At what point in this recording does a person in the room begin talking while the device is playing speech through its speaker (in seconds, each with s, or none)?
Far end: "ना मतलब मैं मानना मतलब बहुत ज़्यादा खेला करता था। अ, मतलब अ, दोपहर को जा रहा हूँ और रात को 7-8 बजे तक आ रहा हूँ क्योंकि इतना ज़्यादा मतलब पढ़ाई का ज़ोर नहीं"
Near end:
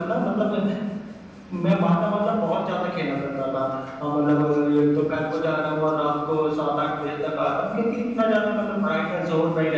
none